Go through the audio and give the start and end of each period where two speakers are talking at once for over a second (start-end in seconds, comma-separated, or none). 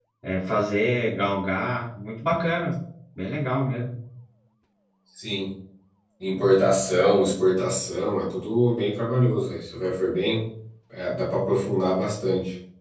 none